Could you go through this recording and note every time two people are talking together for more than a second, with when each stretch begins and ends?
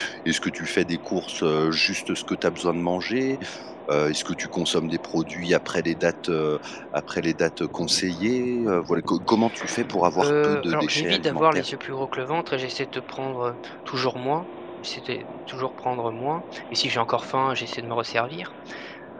10.2-11.6

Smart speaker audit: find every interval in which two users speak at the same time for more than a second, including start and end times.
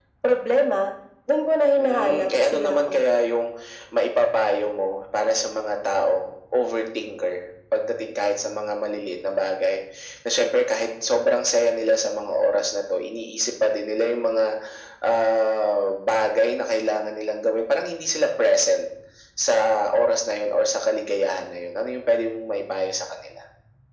1.8-3.1

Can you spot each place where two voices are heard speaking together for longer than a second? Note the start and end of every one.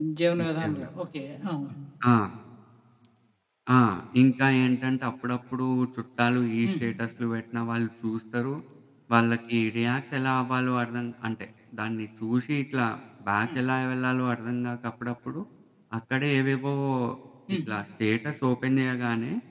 none

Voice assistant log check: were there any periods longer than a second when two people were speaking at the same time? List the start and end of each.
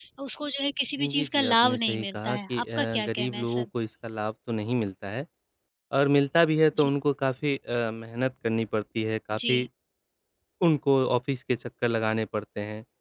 1.0-3.6

